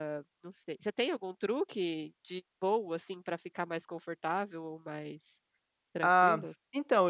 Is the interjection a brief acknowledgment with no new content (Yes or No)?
No